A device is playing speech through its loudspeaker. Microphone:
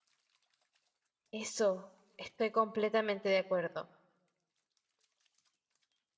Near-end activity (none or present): present